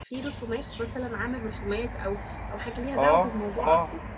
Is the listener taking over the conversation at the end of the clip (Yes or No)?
Yes